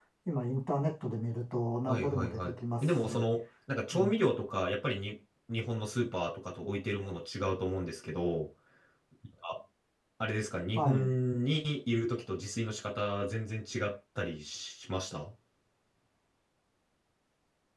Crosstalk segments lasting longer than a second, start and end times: 1.9-3.2

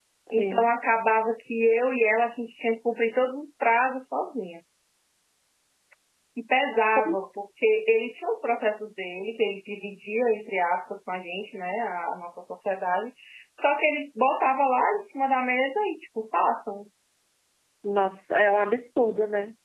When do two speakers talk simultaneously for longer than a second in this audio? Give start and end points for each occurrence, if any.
none

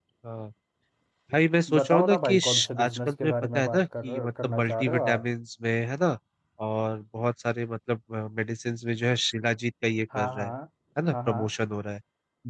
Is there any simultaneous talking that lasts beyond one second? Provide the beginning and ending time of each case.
1.7-5.3

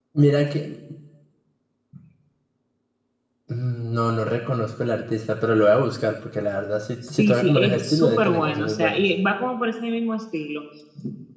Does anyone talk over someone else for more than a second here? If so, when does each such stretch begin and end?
7.1-9.0

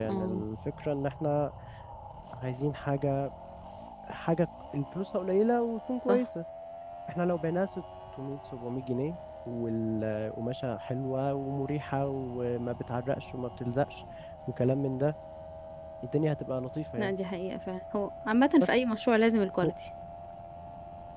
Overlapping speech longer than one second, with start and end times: none

